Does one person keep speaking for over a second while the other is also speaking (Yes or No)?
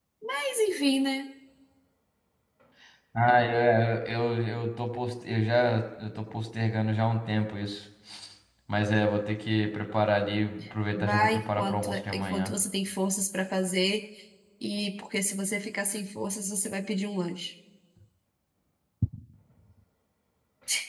Yes